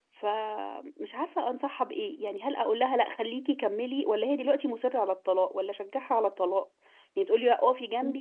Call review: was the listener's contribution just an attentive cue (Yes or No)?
Yes